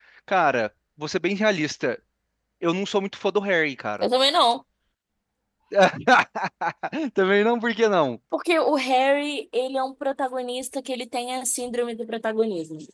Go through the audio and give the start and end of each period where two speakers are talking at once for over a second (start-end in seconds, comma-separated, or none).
none